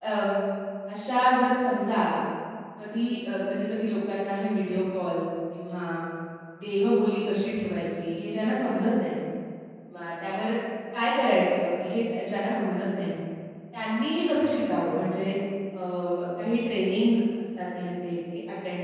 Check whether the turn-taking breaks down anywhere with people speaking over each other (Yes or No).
No